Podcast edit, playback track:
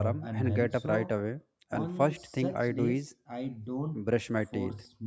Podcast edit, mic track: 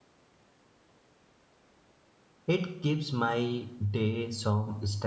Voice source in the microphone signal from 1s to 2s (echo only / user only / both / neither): neither